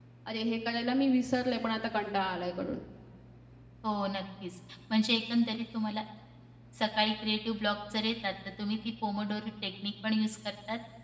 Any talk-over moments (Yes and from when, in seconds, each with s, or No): No